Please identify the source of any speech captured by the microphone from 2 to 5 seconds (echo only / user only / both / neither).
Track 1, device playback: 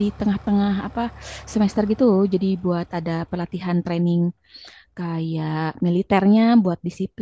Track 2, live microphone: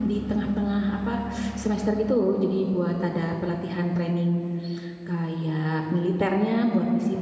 echo only